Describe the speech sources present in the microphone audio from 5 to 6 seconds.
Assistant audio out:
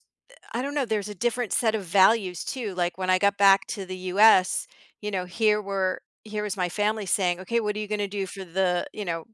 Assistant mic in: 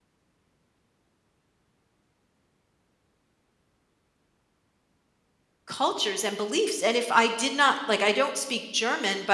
user only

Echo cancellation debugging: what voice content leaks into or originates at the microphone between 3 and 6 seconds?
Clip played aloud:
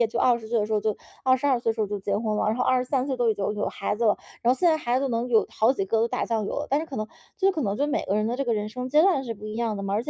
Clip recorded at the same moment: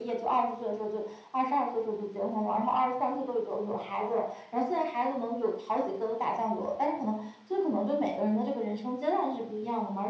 echo only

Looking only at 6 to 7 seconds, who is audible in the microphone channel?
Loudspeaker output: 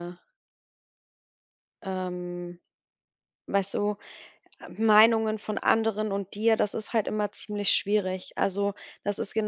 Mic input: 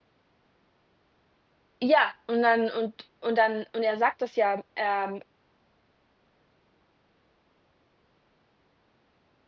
neither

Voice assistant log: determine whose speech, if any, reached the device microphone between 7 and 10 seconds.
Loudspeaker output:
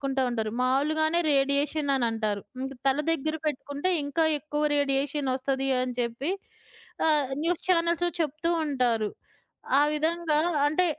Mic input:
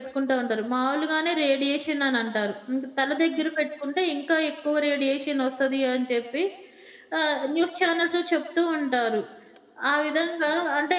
echo only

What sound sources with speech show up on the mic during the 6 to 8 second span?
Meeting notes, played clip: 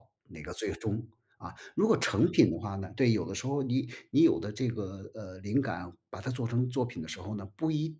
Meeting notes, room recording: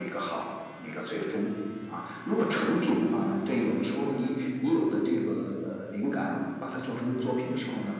echo only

